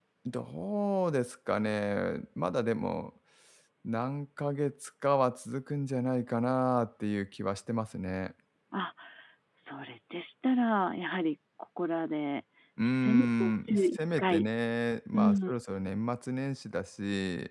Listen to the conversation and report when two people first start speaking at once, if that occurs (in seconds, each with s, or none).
12.8 s